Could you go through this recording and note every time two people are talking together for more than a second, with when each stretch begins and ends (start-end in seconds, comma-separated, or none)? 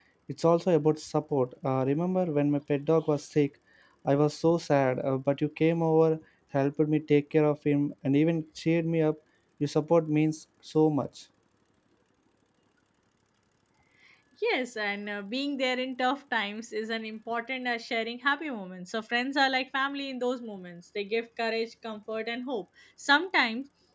none